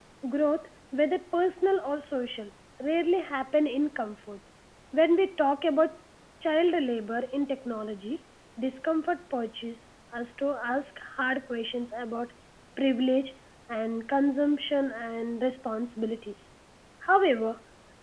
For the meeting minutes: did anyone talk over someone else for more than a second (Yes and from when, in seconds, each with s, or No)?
No